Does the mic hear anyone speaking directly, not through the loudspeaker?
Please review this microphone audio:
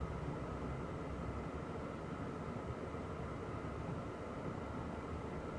No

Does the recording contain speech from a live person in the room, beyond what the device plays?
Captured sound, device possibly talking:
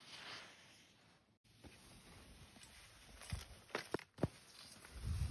No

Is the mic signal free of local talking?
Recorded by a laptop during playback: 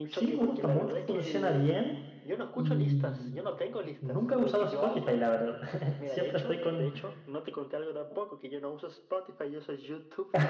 No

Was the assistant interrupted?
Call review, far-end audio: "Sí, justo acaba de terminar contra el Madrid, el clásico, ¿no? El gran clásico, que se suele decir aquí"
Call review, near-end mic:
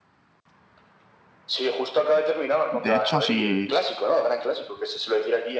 Yes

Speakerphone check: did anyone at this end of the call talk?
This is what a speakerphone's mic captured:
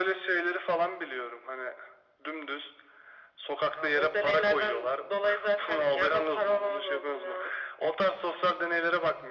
No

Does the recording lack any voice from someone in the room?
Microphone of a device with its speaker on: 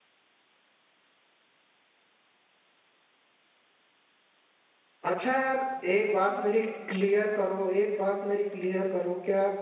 No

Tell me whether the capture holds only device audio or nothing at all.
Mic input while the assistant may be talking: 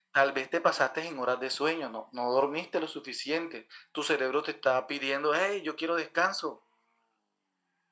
Yes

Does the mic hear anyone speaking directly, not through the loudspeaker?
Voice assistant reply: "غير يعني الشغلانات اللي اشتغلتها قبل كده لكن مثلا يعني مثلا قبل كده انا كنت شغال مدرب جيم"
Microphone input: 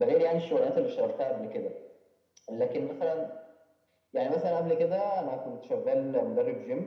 No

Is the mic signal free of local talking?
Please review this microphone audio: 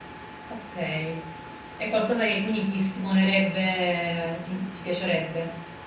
No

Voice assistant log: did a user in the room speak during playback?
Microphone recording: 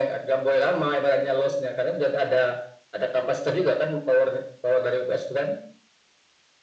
No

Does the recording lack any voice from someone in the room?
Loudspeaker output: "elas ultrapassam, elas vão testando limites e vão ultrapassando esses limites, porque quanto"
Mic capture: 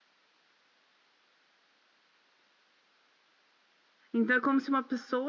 No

